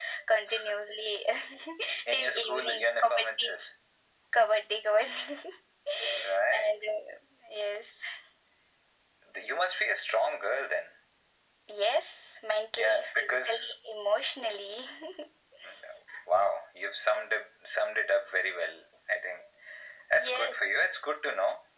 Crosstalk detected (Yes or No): Yes